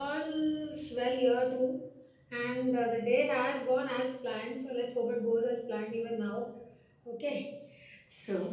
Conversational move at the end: listening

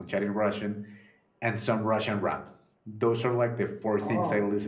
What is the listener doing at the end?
listening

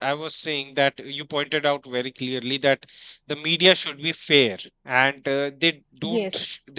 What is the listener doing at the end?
listening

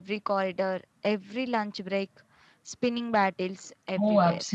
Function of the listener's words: taking over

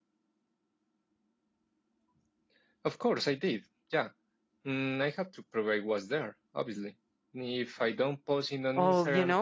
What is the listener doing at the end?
taking over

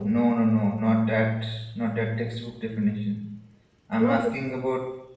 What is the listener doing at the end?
listening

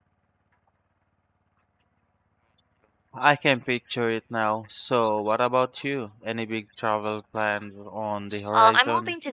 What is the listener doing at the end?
taking over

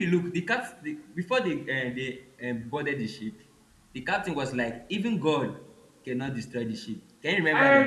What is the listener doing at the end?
taking over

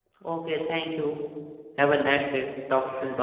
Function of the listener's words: taking over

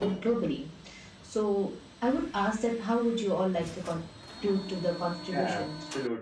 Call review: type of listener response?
taking over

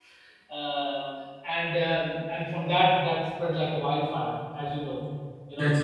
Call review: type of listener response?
listening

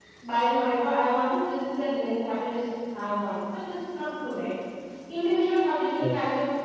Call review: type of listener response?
listening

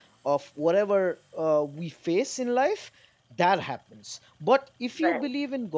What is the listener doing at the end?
listening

